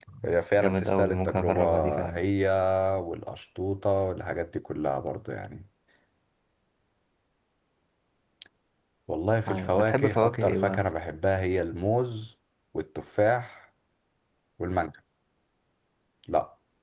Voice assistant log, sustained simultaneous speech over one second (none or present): present